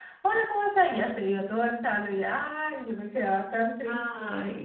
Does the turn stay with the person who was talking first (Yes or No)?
Yes